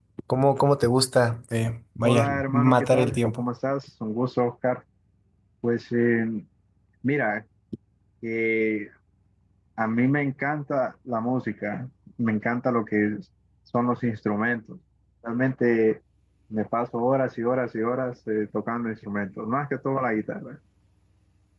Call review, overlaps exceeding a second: present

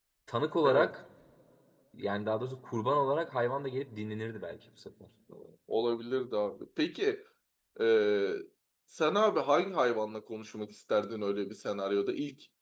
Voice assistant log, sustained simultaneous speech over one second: none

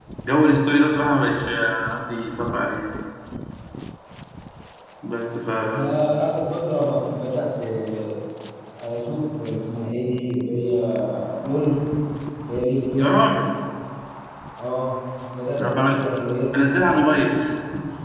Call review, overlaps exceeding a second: none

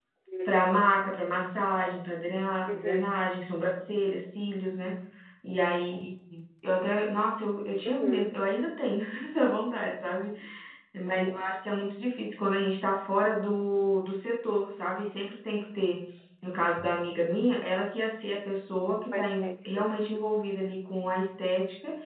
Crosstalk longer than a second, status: none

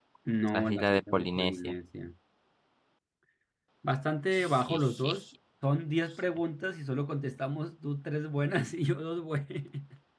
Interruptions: present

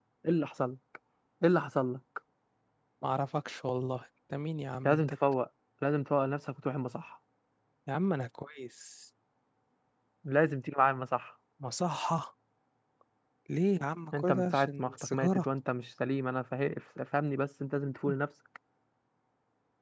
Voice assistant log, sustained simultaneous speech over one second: present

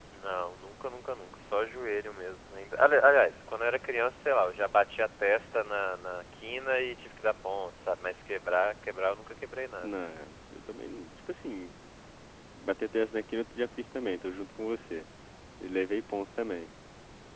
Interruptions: none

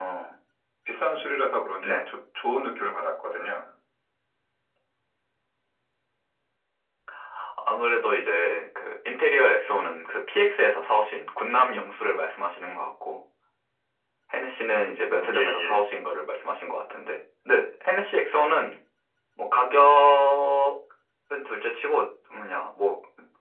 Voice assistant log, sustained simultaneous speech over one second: none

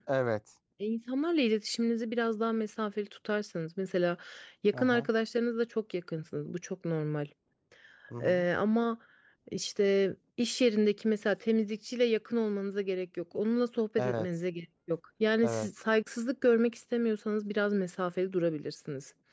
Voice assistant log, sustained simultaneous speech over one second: none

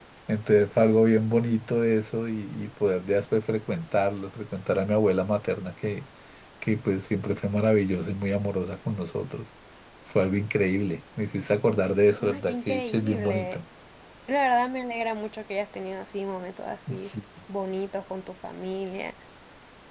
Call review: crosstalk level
present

